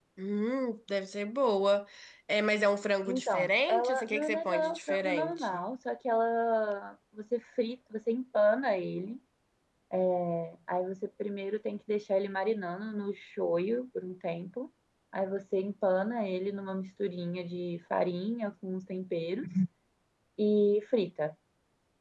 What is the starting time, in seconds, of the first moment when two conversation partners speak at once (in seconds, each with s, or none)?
3.1 s